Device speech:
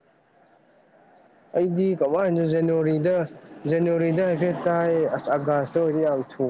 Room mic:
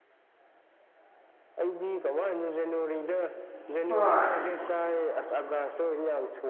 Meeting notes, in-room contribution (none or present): present